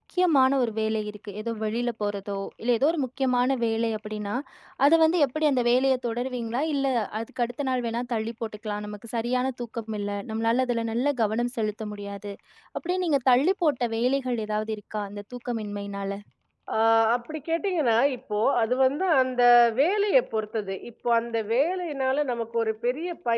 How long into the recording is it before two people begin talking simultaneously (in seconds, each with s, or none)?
none